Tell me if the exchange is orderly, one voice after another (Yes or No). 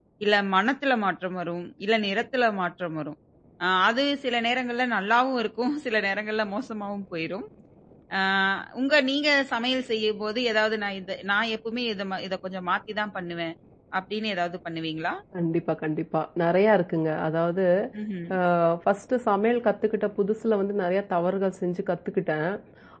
Yes